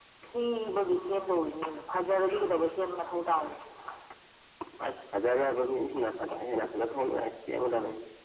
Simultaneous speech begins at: none

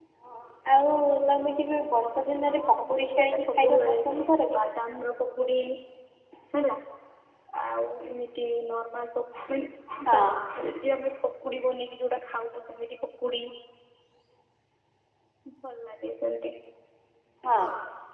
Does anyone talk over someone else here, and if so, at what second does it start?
2.4 s

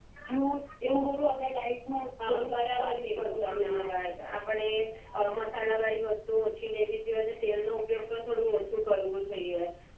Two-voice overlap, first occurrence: 2.2 s

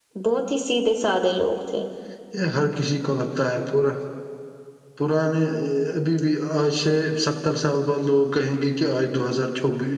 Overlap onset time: none

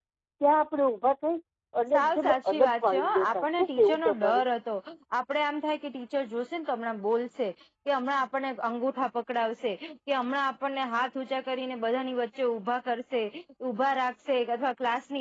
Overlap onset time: 1.9 s

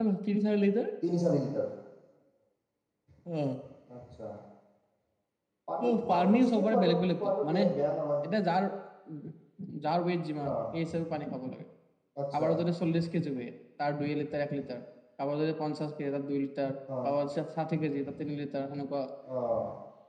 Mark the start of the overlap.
6.1 s

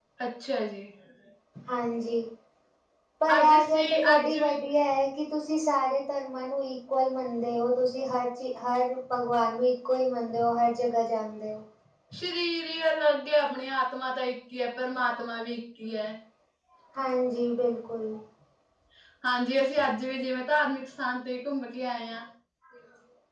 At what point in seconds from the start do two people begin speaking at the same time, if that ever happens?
3.4 s

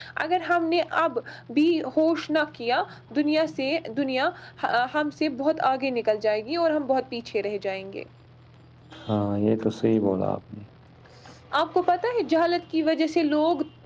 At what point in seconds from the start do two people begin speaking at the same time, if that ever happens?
none

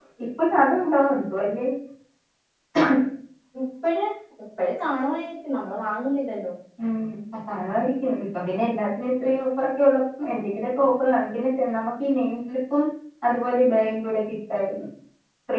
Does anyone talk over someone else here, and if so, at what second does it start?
none

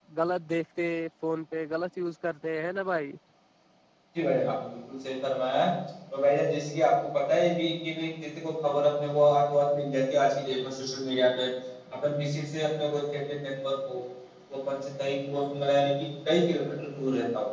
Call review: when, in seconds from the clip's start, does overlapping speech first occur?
none

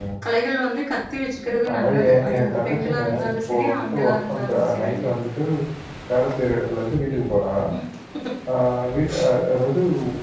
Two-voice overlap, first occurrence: 1.7 s

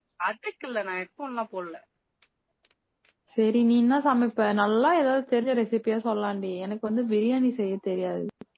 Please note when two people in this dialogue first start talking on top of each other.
none

